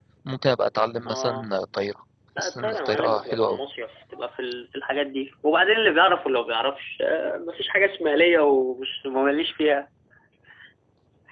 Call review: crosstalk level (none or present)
present